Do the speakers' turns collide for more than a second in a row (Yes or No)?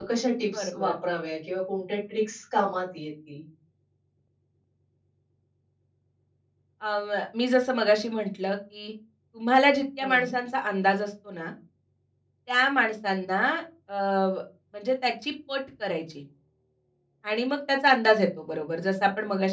No